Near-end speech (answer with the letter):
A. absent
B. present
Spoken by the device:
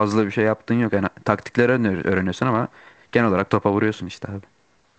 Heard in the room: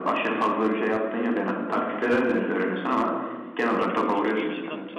B